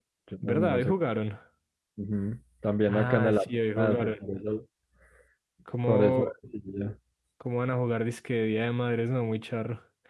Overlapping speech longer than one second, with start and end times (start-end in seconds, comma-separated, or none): 2.9-4.1